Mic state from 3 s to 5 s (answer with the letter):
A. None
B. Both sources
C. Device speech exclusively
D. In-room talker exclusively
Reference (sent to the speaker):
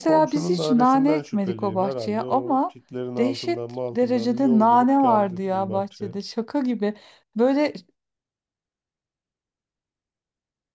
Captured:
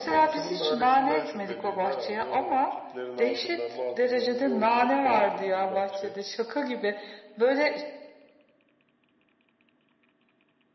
C